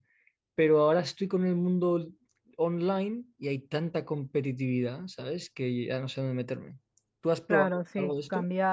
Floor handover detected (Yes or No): Yes